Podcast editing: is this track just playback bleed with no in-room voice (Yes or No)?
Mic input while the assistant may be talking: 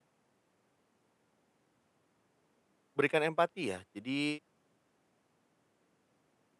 No